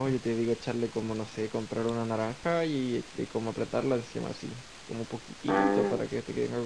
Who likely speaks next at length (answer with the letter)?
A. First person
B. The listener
A